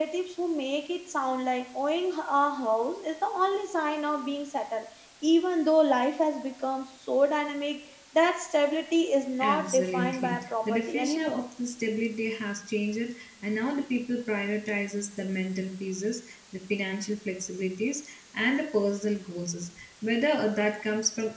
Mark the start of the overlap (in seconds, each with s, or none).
9.4 s